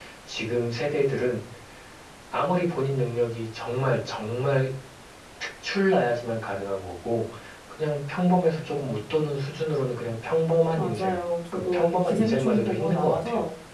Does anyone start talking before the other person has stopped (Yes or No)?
Yes